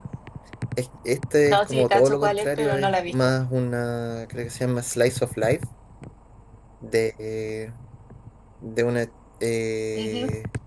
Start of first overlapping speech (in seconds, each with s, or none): 1.5 s